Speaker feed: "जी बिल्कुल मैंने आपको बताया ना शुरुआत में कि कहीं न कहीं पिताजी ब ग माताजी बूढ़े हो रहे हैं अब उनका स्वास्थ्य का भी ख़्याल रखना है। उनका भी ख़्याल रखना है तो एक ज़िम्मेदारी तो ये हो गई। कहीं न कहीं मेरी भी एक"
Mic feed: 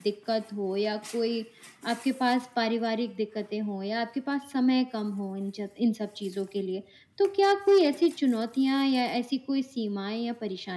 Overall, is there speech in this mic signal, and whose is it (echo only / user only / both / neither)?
user only